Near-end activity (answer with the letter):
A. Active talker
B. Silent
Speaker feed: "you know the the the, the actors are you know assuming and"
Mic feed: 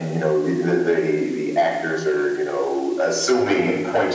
B